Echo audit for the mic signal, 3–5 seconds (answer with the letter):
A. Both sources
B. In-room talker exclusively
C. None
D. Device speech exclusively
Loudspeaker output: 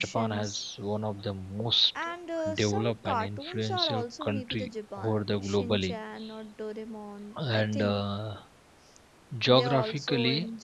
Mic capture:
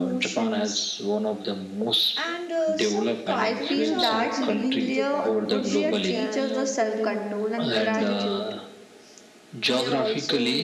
A